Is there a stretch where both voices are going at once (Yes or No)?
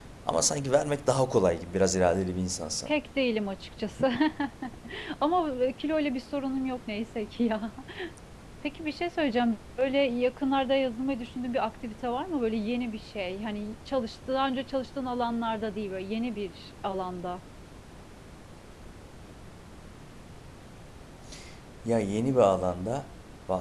No